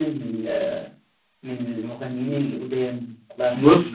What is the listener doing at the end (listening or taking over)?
taking over